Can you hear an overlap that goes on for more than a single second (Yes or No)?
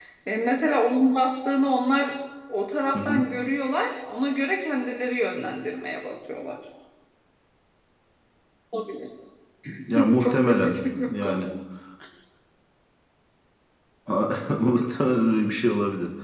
Yes